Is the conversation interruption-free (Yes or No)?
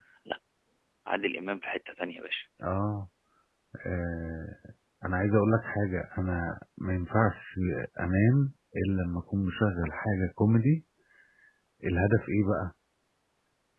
Yes